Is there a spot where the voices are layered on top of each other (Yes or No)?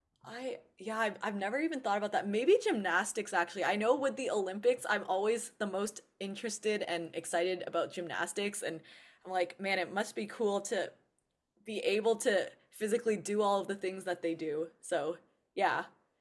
No